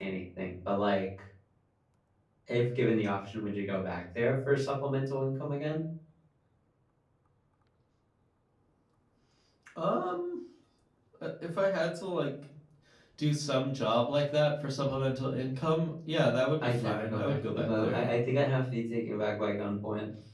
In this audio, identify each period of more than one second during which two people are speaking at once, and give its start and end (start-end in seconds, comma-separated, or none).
16.6-18.0